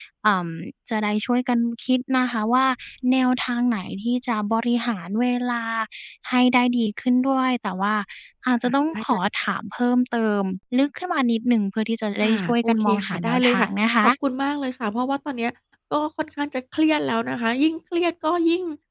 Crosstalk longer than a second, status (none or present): present